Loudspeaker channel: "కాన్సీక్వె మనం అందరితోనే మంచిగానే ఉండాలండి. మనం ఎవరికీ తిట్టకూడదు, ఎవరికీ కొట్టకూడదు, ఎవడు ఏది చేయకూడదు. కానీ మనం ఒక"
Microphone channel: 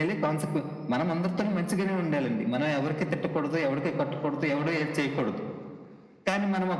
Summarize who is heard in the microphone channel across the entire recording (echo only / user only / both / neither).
echo only